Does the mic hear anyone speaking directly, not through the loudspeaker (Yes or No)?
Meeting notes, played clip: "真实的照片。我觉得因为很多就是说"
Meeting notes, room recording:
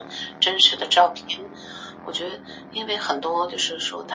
No